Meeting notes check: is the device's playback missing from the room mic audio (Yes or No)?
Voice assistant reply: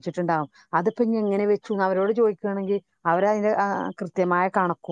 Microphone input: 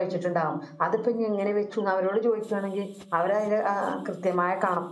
No